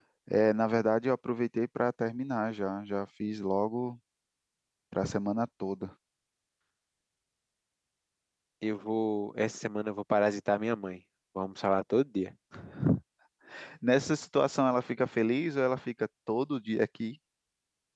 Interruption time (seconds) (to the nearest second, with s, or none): none